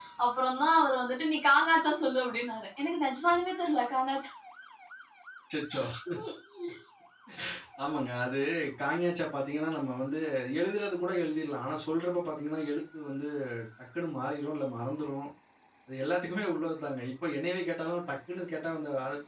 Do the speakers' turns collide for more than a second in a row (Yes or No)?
No